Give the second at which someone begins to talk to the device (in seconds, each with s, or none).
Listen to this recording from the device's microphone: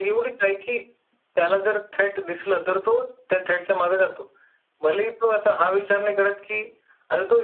none